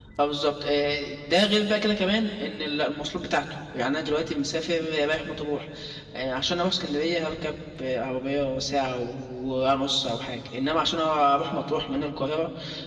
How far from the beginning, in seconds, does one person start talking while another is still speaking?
none

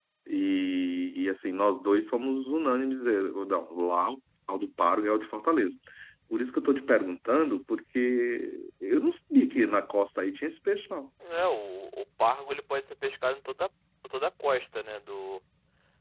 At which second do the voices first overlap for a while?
none

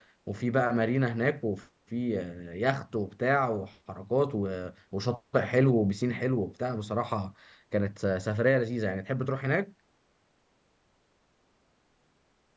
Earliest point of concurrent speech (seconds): none

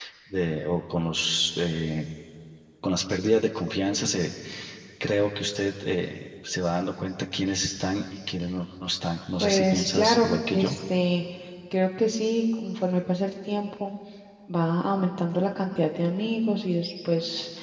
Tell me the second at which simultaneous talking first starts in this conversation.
9.4 s

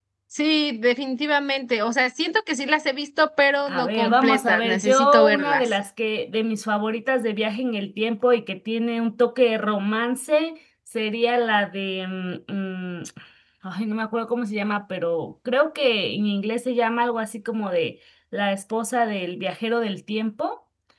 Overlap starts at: 3.7 s

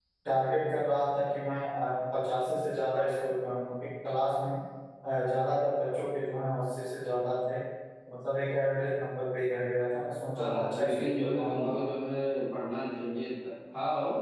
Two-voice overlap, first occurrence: 10.3 s

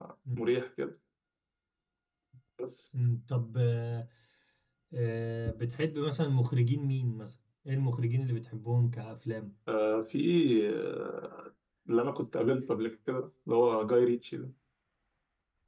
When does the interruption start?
none

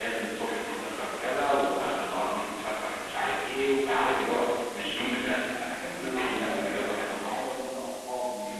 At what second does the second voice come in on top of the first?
5.8 s

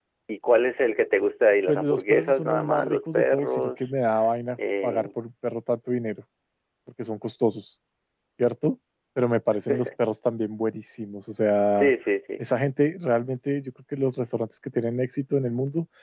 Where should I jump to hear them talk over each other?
1.7 s

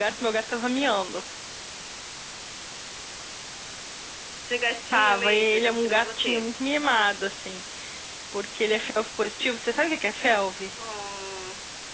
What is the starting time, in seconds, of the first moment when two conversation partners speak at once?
4.9 s

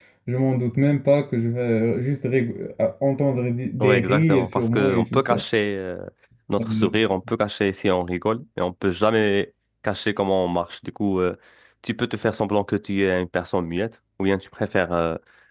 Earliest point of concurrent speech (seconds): 3.8 s

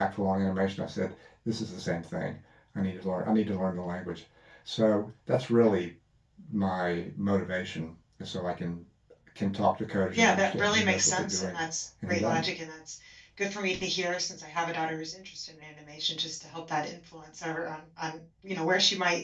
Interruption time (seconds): 10.2 s

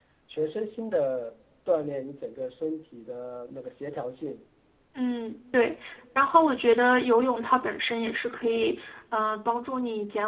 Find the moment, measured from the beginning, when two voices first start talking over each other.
none

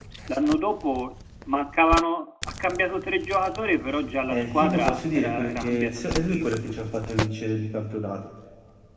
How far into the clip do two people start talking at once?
4.3 s

